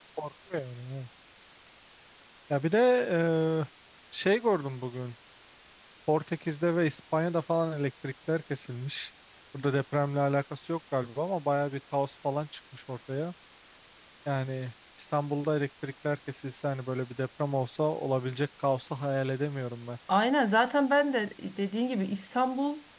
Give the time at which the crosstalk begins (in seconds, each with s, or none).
none